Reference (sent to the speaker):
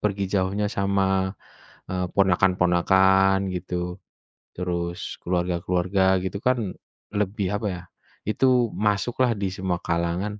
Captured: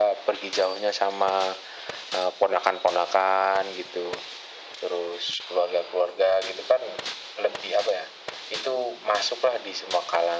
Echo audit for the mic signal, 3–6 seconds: echo only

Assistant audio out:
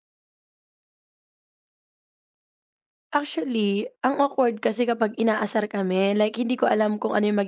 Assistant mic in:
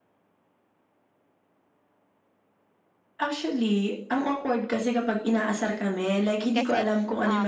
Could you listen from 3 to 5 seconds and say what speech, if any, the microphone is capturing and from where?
echo only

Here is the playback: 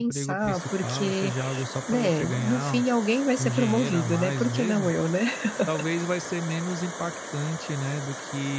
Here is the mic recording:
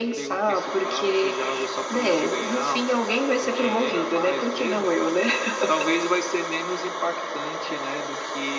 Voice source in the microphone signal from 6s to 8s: echo only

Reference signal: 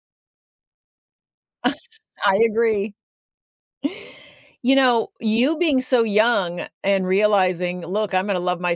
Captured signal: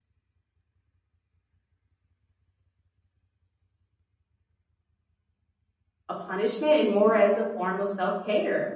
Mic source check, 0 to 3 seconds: neither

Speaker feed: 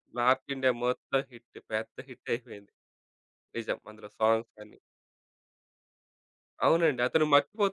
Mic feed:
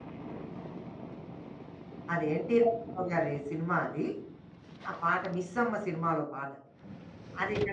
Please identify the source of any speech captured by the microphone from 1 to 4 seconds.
user only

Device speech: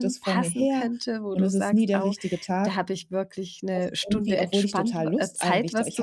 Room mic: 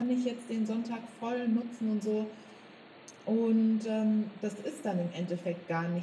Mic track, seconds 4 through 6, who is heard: user only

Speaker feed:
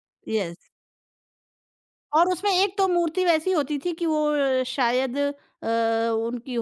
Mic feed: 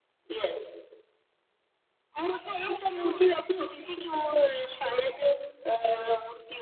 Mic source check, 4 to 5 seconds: echo only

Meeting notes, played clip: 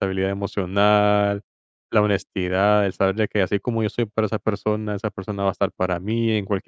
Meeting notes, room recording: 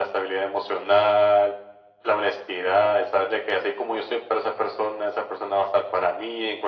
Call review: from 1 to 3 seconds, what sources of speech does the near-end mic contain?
echo only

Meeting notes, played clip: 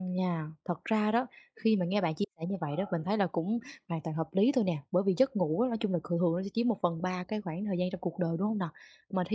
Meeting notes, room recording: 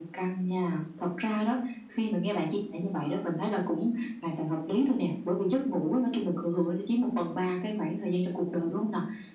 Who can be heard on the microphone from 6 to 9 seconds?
echo only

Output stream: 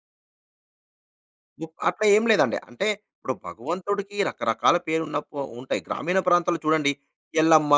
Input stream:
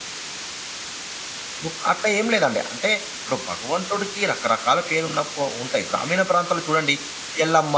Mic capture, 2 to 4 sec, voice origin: echo only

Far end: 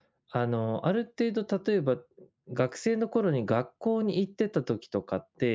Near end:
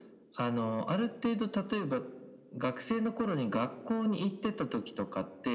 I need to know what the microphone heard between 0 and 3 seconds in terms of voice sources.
echo only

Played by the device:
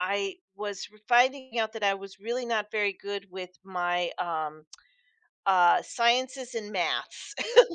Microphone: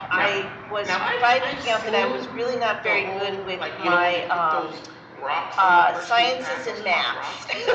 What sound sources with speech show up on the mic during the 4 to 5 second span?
both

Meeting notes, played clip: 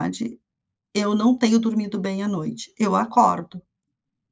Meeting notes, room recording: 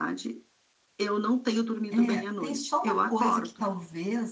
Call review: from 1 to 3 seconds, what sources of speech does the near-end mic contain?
both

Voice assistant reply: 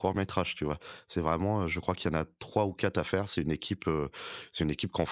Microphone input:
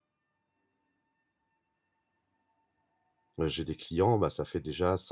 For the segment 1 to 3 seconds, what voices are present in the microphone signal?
neither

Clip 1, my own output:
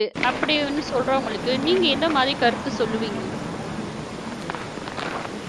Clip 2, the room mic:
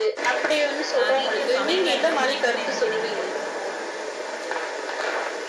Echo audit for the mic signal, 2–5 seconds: both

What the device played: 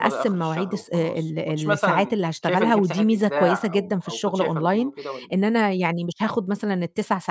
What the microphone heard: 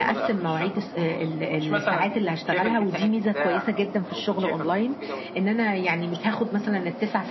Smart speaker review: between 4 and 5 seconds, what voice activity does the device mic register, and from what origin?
echo only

